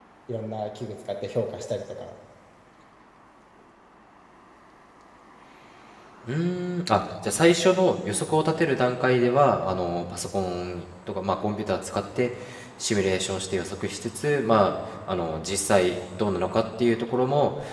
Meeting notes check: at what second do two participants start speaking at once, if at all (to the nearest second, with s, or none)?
none